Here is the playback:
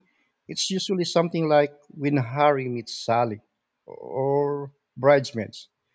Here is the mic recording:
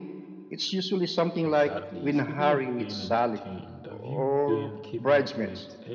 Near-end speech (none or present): present